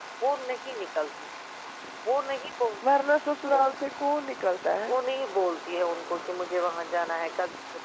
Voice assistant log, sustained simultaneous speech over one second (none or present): none